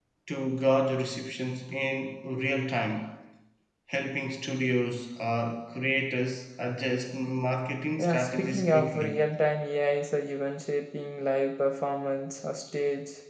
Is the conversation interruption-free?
No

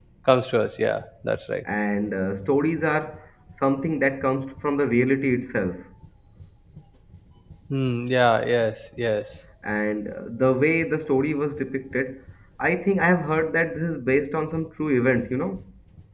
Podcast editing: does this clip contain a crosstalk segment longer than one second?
No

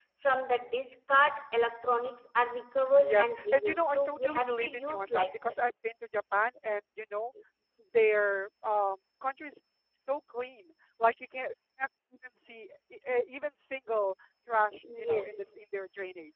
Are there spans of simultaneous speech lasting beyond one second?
Yes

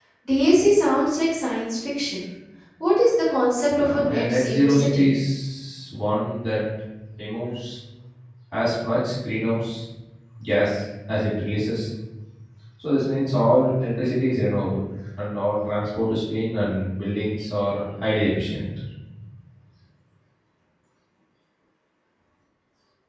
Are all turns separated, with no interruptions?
No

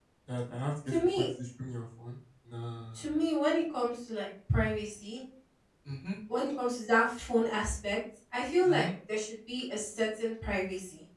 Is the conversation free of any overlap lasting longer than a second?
Yes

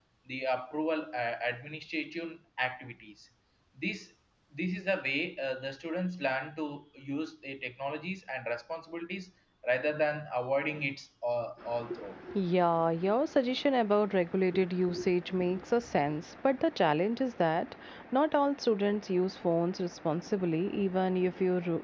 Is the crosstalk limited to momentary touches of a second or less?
Yes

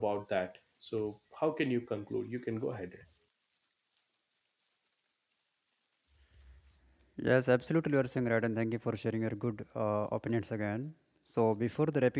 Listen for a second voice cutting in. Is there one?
No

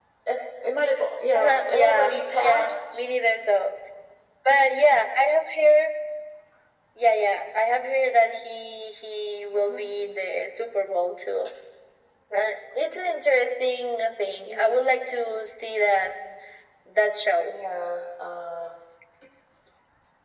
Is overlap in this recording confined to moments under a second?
No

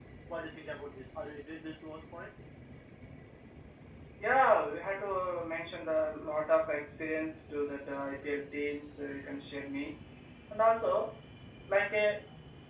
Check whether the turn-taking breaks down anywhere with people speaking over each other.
No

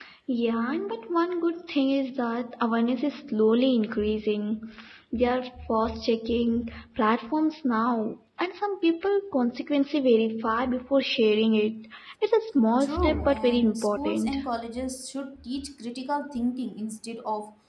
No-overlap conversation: No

